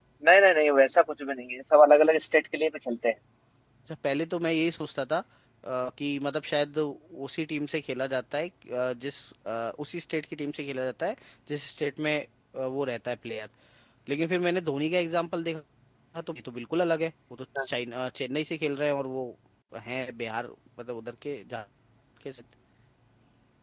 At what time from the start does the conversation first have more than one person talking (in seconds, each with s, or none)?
none